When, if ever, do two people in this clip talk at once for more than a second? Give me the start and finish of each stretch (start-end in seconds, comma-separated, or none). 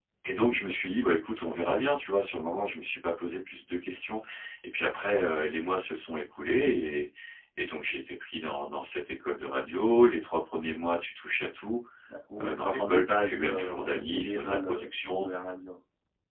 12.4-15.2